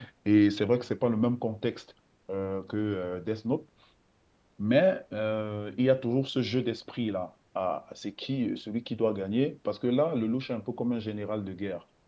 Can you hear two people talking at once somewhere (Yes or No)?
No